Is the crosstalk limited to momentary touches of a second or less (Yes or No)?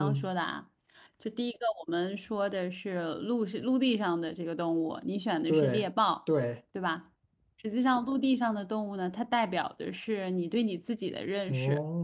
Yes